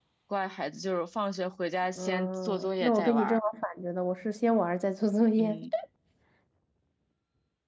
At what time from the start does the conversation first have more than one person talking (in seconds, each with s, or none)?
2.0 s